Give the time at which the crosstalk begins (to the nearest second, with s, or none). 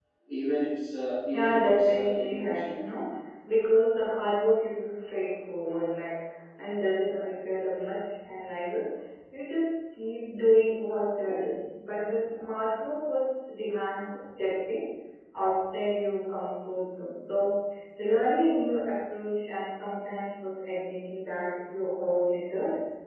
1 s